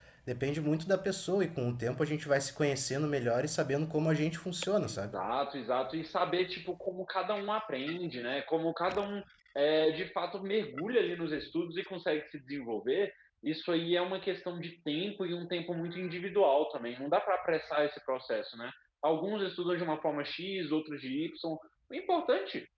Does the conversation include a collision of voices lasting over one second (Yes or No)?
No